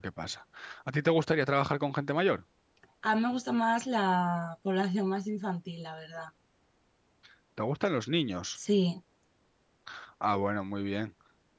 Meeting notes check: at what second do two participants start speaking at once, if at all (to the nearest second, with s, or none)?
none